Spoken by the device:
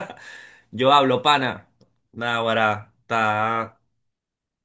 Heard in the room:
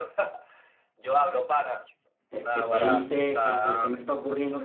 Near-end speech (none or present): present